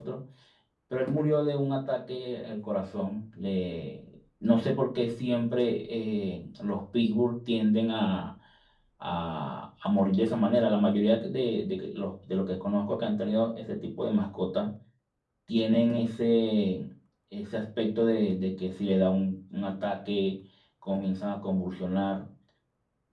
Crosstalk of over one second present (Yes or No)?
No